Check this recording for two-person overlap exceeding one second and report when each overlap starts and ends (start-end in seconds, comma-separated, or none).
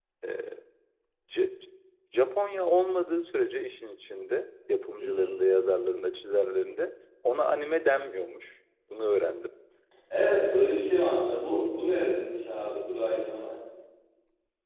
none